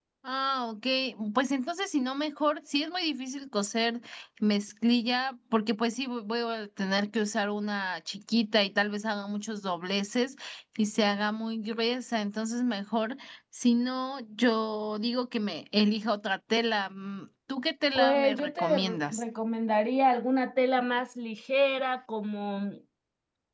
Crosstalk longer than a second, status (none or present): present